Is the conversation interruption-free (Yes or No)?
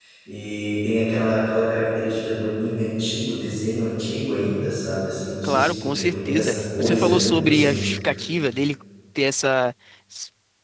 No